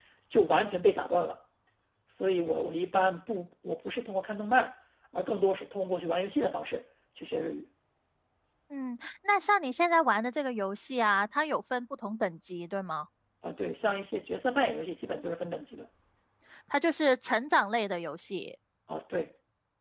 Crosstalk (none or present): none